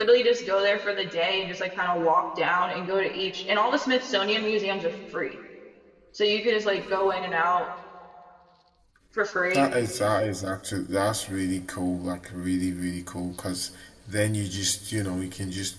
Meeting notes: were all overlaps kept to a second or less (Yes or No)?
Yes